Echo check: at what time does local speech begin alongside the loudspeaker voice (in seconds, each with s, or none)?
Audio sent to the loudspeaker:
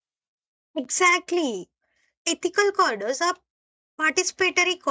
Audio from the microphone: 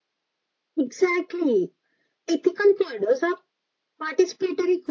none